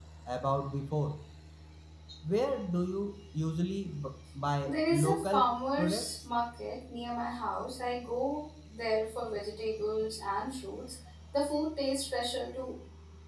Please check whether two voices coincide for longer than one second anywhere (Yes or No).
Yes